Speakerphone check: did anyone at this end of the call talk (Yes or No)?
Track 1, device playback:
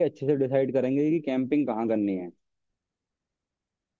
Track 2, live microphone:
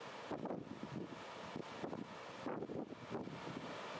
No